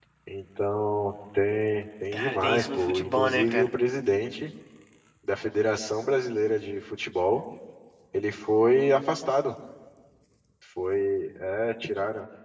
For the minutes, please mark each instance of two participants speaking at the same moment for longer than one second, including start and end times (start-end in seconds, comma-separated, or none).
2.1-3.7